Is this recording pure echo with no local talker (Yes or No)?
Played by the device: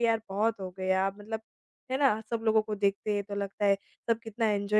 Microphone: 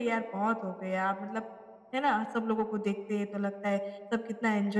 Yes